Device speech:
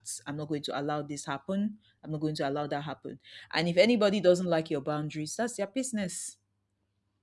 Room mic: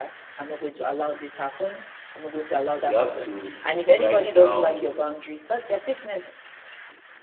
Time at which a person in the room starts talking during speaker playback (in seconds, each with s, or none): 2.8 s